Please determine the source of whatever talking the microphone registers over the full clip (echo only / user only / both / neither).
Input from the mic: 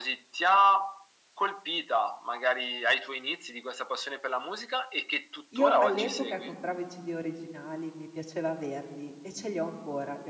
both